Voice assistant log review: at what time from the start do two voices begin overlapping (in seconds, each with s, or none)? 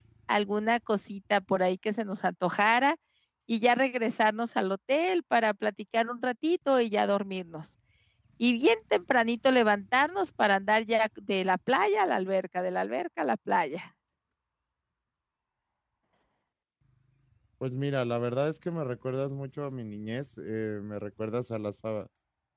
none